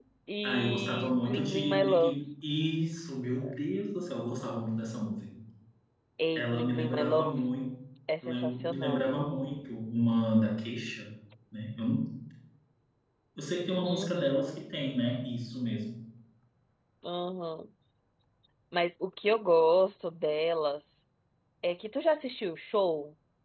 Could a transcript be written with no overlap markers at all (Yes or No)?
No